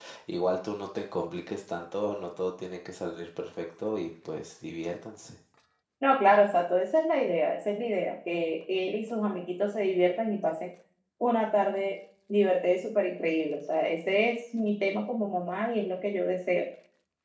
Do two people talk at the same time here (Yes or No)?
No